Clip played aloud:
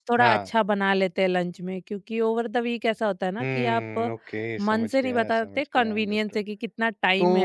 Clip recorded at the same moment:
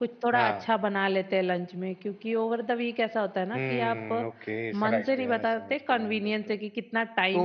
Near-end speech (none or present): present